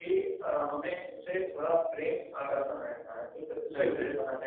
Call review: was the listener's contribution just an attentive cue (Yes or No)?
Yes